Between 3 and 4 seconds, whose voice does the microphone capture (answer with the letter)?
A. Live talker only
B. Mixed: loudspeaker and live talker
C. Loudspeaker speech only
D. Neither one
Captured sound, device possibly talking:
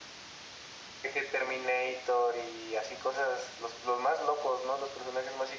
C